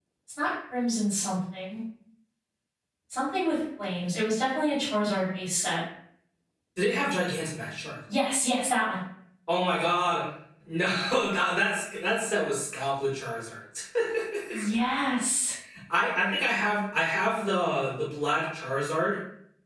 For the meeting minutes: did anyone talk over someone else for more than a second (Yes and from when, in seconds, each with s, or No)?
No